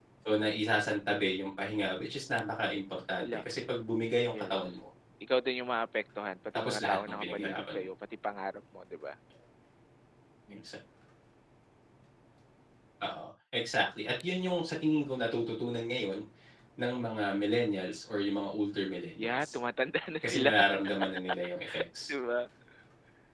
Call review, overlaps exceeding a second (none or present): present